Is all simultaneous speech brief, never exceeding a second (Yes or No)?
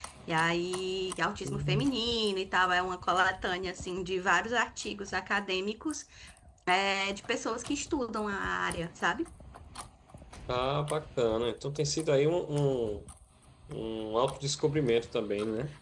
Yes